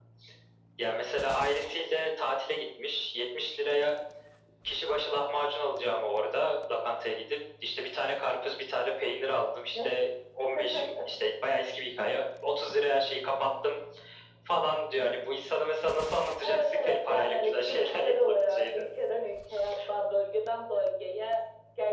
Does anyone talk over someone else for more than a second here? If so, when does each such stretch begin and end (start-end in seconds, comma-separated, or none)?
16.4-18.9